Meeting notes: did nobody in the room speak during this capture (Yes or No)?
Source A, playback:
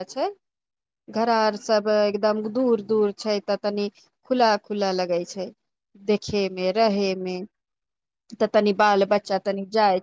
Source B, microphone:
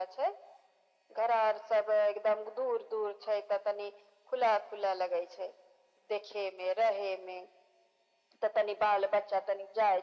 Yes